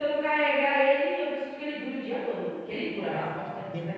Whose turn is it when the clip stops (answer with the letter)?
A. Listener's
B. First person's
A